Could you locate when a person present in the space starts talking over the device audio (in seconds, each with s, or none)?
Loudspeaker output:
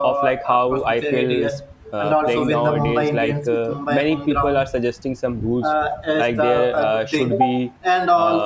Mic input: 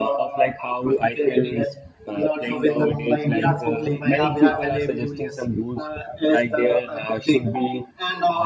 3.3 s